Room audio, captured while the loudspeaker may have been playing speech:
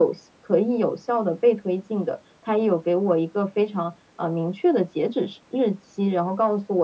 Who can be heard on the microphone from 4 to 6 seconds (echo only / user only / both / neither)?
echo only